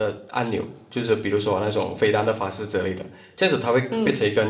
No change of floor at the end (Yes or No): Yes